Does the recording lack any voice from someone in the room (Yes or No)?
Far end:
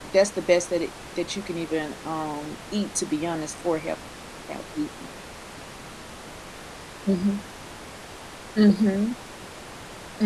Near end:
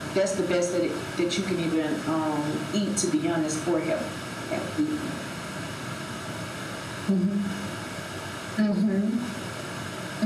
Yes